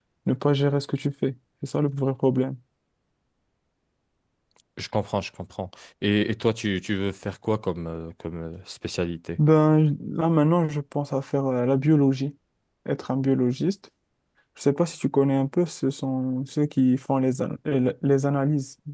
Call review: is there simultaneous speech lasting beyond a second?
No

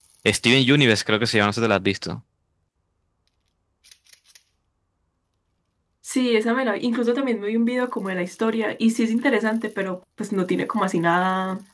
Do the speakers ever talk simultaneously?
No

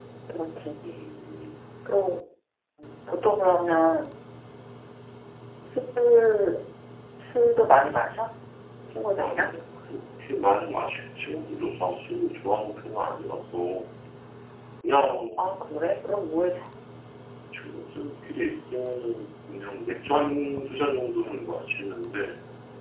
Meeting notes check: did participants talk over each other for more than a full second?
No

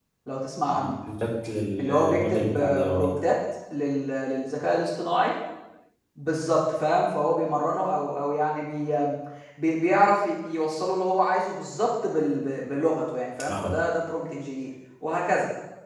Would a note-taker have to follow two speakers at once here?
Yes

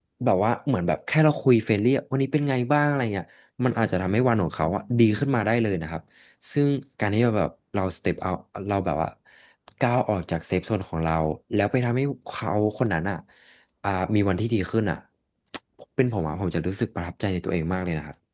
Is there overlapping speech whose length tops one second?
No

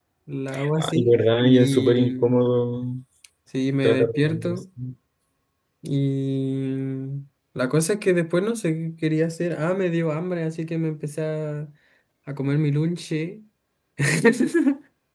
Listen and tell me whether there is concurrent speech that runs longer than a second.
Yes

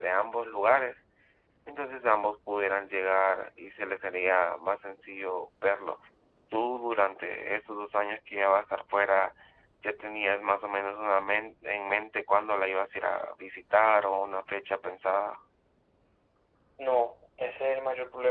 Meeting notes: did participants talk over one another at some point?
No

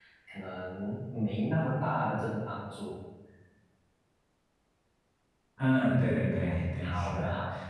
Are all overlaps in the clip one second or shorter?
Yes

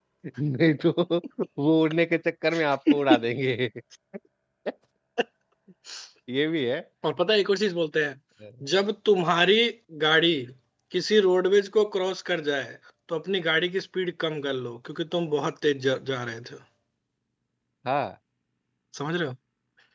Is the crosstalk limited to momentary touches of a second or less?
Yes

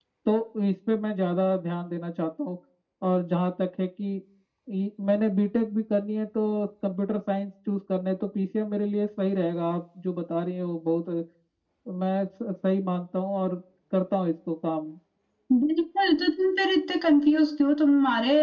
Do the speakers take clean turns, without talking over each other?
Yes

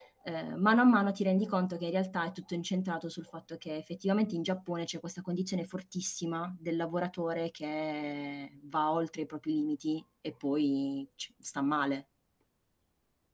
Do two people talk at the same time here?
No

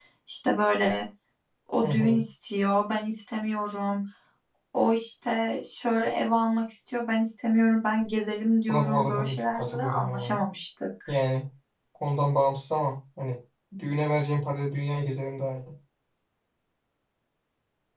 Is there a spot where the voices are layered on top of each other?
Yes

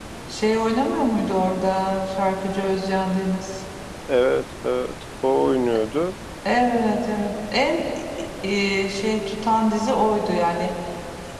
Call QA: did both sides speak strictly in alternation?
Yes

